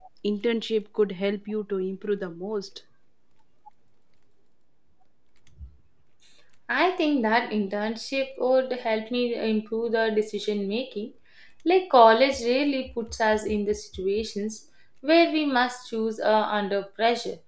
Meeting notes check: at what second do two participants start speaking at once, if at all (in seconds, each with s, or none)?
none